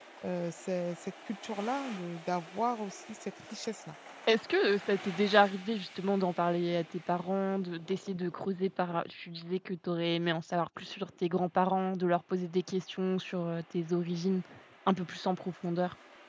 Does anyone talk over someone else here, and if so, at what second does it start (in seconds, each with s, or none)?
none